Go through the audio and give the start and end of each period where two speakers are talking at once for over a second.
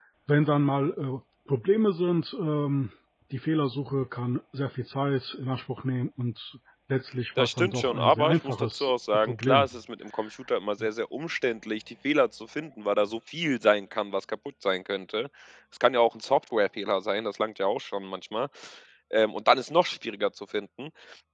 7.4-9.7

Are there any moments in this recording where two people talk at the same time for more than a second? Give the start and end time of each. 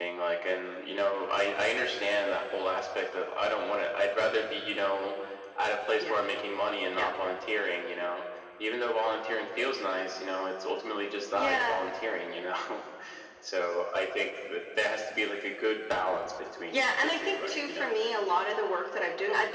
16.7-17.9

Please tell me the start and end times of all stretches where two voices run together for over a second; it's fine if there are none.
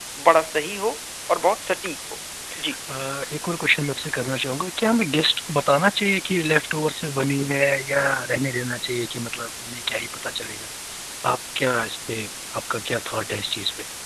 none

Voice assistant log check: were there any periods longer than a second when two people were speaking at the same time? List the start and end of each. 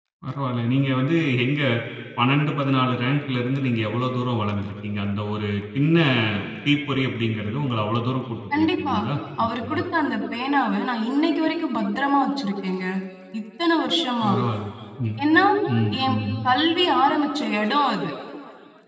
none

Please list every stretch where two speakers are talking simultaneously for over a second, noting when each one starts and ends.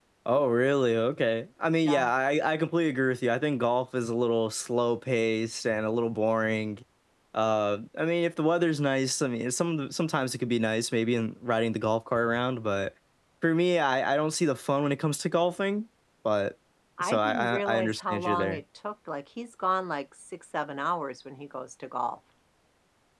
17.0-18.6

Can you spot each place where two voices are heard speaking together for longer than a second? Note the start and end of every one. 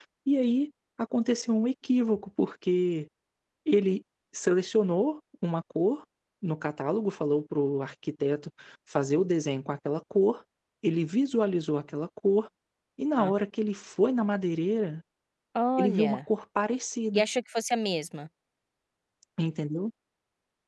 none

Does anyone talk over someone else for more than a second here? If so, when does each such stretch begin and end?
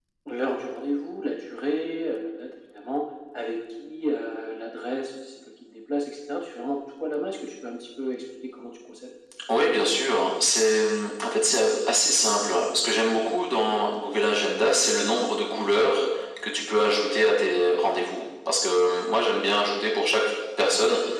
none

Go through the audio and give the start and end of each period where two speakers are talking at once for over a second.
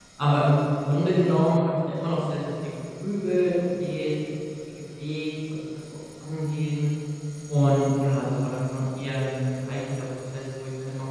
none

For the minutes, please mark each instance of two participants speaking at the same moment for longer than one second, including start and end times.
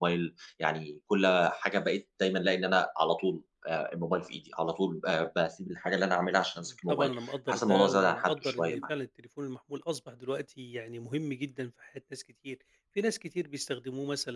7.5-8.8

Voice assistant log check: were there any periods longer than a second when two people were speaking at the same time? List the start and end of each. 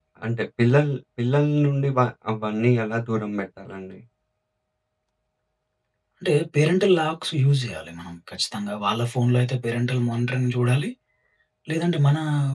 none

